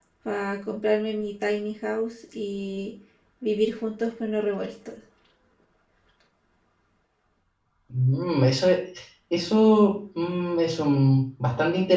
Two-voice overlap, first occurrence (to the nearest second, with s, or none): none